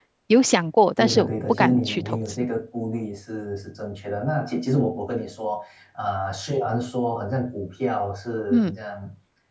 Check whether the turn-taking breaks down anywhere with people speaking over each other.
Yes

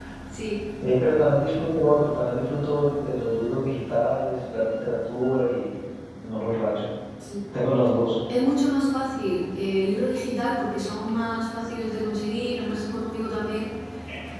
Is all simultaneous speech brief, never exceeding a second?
Yes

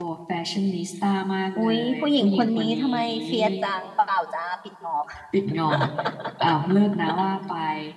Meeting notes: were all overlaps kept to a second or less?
No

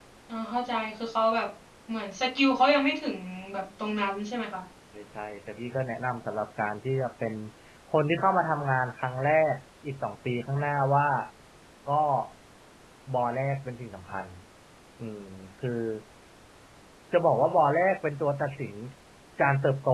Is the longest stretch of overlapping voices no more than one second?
Yes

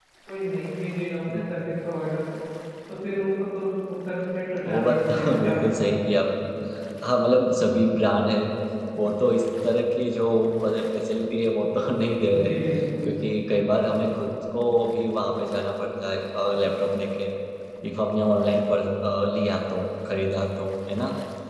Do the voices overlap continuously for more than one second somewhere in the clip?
Yes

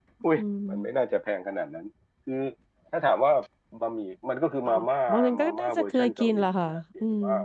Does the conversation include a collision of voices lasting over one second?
Yes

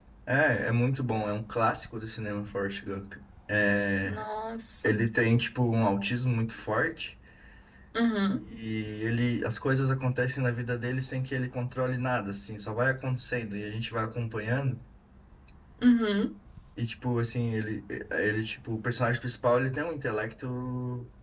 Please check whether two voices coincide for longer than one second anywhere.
No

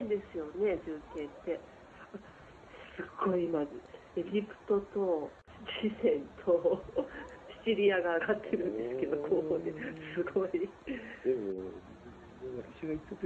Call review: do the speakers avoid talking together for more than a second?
No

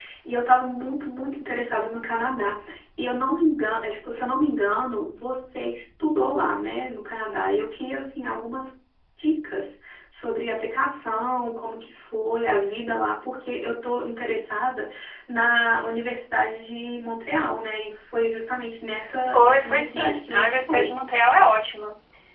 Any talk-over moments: Yes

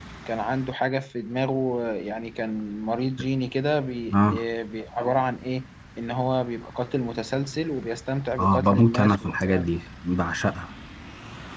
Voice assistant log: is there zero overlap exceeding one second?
No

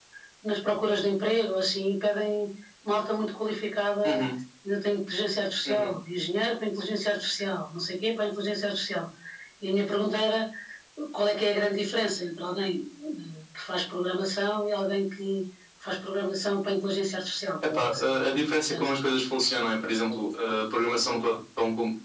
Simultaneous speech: Yes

